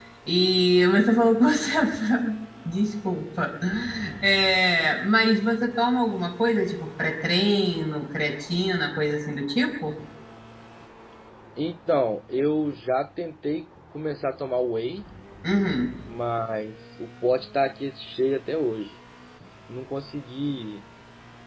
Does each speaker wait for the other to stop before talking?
Yes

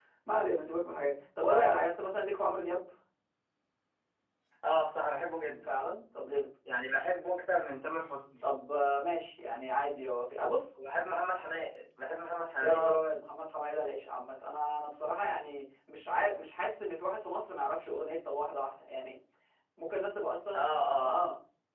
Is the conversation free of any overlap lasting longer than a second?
Yes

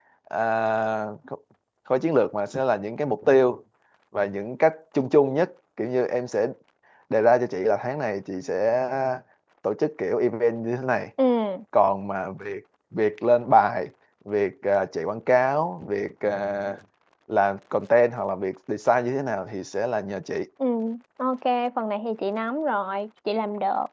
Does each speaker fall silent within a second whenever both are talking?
Yes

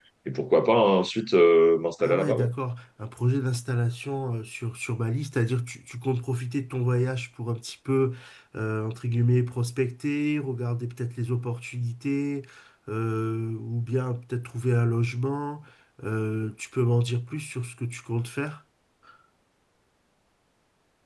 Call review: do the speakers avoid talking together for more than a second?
Yes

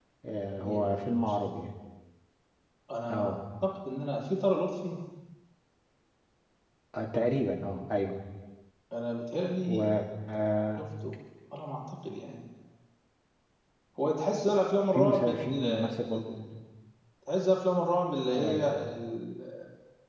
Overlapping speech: Yes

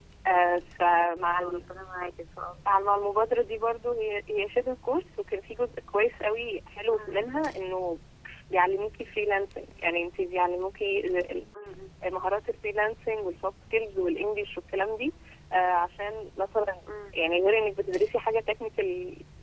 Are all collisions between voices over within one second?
Yes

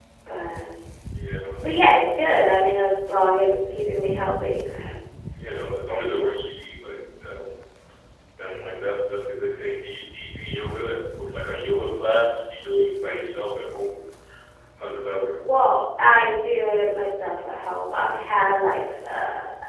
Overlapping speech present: No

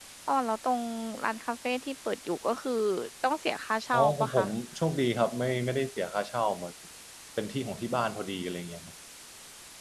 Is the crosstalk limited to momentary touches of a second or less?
Yes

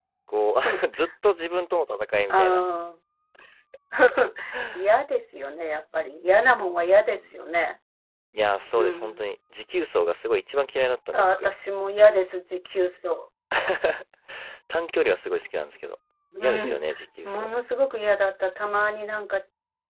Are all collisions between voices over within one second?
Yes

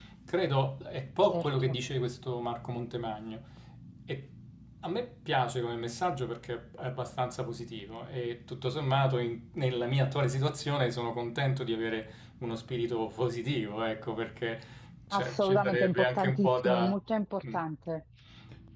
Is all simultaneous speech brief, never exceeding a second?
No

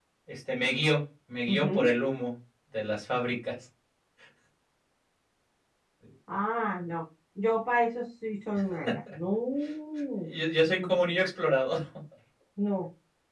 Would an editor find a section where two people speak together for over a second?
No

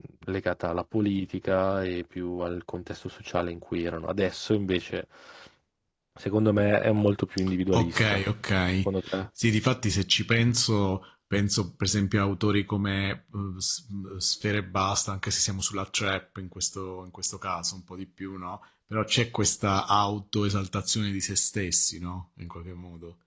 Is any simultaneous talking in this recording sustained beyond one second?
No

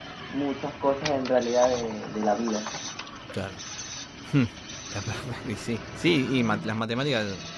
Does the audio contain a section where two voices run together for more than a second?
No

